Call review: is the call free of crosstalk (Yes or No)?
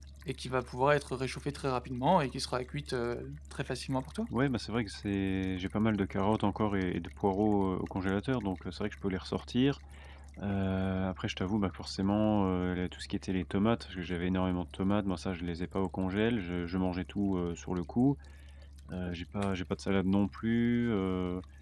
Yes